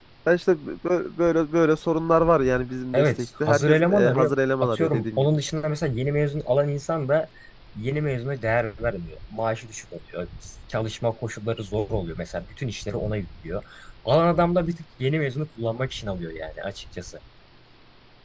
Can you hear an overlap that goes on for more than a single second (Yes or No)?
Yes